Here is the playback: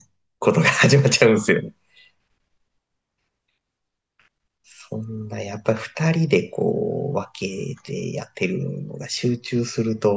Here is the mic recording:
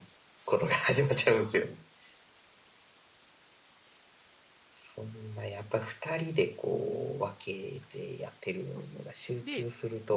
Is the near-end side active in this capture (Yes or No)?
Yes